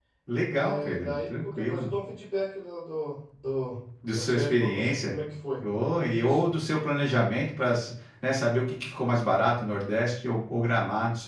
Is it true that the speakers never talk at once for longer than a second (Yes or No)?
No